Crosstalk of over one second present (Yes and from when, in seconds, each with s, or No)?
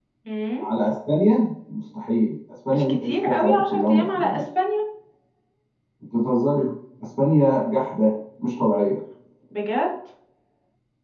Yes, from 2.7 s